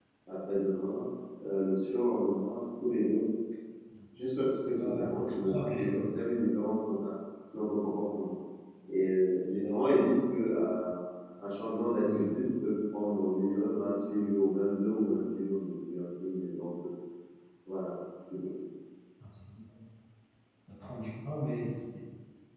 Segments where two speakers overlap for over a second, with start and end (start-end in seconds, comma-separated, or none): 4.7-6.2